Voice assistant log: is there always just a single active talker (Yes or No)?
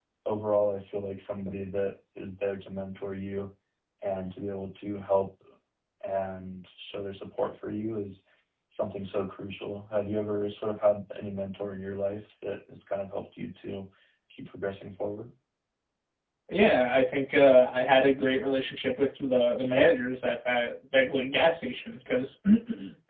Yes